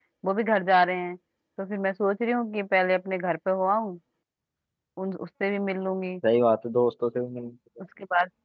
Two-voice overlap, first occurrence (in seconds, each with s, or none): none